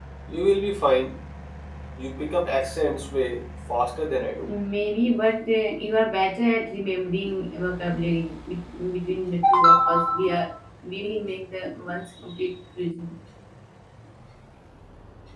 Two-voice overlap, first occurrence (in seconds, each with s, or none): none